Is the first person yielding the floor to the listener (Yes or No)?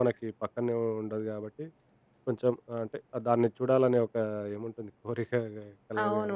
Yes